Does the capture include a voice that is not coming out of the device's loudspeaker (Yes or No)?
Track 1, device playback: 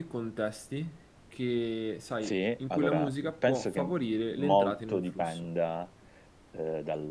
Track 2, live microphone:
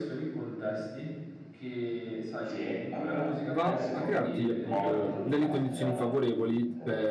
Yes